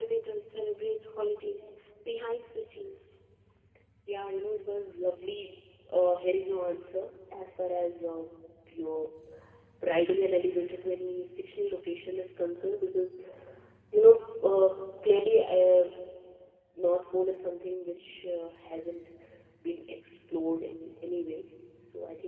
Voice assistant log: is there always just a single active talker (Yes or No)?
Yes